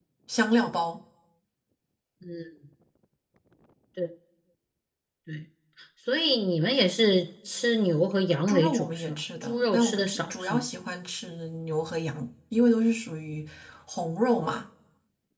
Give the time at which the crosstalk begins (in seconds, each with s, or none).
8.5 s